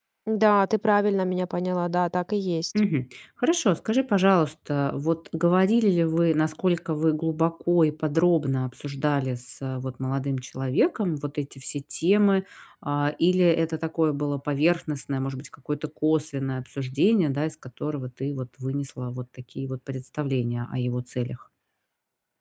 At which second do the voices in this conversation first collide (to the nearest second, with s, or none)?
none